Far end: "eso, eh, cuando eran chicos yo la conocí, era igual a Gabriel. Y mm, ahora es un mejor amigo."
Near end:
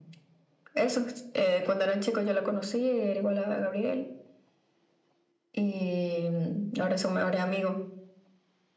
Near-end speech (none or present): none